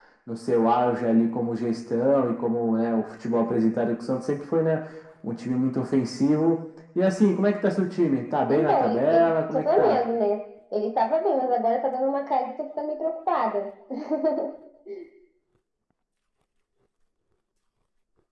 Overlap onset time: 8.5 s

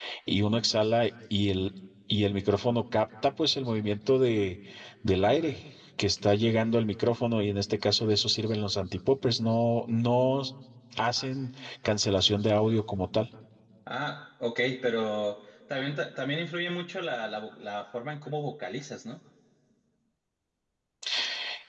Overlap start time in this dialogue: none

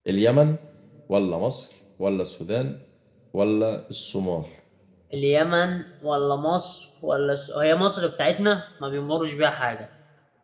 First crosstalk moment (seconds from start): none

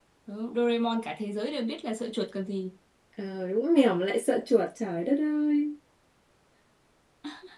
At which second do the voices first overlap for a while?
none

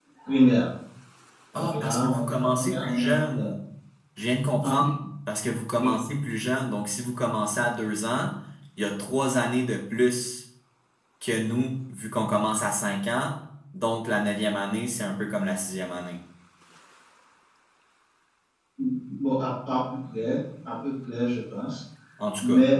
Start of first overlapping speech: 1.6 s

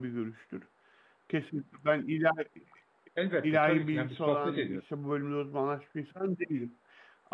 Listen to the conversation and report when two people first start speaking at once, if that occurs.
3.4 s

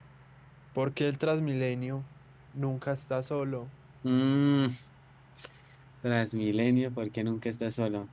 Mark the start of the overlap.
none

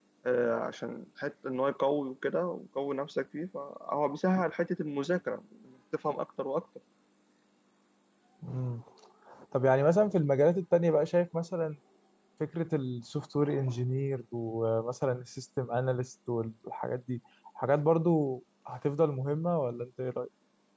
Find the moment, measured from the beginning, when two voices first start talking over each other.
none

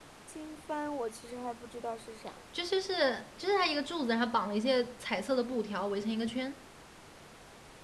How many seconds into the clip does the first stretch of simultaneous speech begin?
none

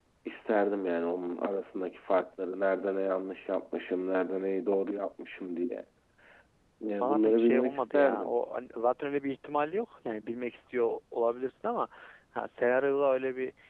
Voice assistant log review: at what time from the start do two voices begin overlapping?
7.0 s

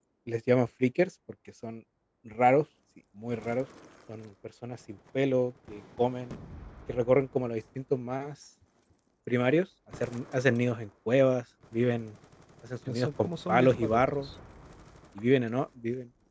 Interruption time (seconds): 12.9 s

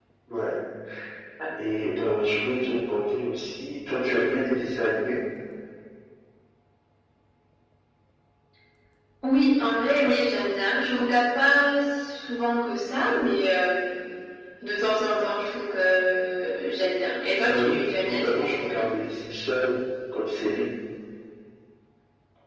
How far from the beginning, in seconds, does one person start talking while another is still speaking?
17.4 s

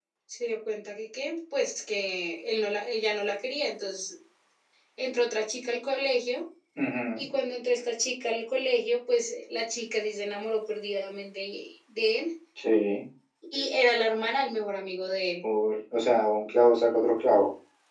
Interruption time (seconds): none

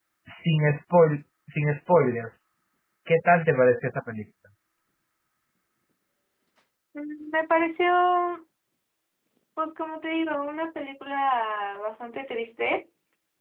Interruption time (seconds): none

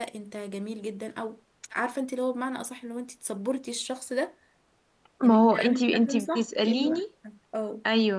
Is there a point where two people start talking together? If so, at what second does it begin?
5.2 s

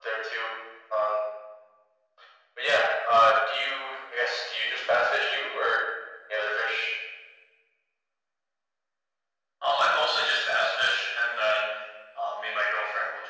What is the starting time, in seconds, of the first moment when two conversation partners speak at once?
none

